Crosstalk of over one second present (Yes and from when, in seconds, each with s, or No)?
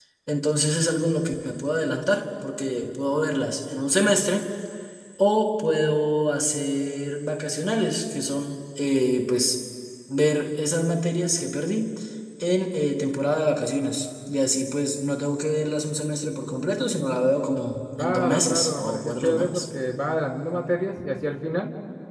Yes, from 18.0 s